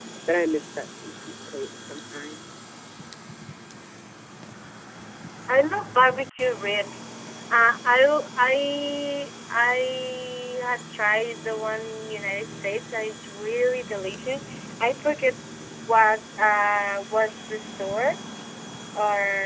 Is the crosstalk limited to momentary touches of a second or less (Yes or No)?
Yes